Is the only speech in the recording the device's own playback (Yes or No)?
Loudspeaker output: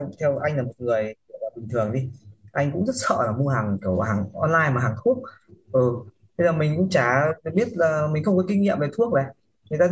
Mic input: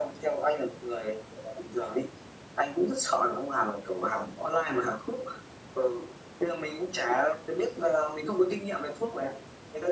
Yes